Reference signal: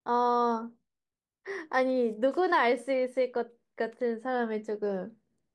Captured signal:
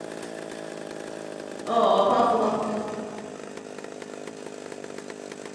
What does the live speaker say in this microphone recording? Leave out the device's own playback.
어, 어, 다 왔어, 다 왔어, 다 왔어.

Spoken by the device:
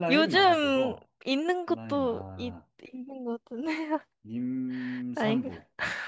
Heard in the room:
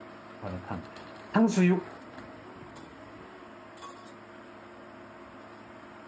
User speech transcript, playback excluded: 마라탕. 탕수육,

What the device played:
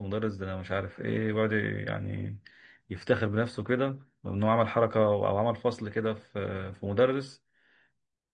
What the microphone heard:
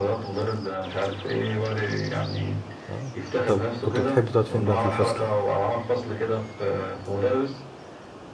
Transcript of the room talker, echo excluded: اه طب كنت بتحب تقعد فين بقى في الفصل

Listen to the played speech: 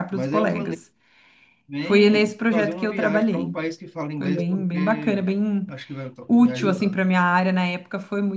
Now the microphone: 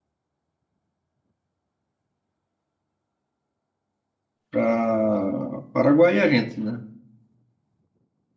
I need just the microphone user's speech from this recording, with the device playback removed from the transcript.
para Paraguai e Argentina.

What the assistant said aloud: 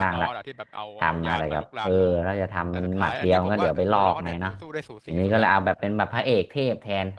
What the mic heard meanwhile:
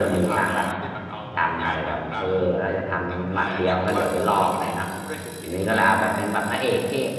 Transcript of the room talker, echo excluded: none

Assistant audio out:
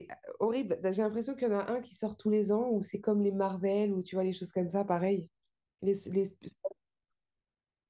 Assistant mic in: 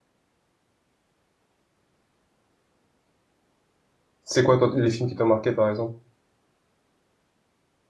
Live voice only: C'est quoi toi, les films qui t'ont marqué par exemple?

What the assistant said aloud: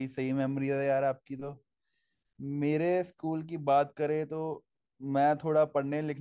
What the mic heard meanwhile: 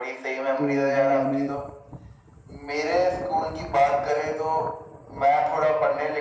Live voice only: तो मैंने

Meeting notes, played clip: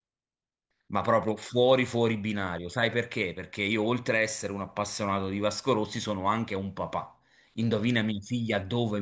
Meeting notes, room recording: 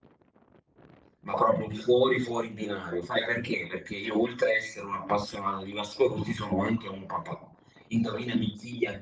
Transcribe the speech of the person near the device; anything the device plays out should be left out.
none

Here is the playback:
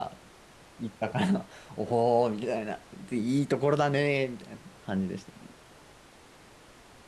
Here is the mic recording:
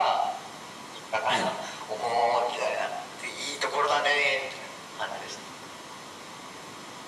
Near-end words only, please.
はい。

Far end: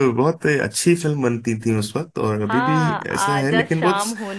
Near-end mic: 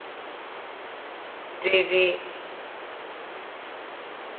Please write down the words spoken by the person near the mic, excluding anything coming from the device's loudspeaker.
जी जी

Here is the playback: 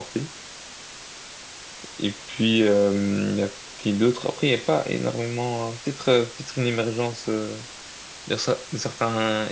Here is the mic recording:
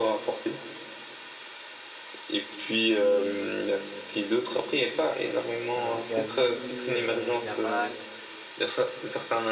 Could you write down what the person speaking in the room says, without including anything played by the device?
euh, Gavi, euh, Yamal.

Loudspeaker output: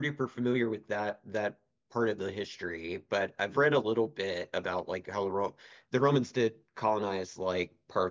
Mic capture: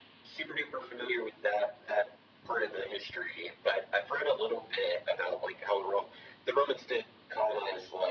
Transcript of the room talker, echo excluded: none

